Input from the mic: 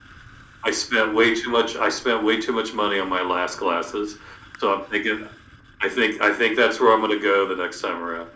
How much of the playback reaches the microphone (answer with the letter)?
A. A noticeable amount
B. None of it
A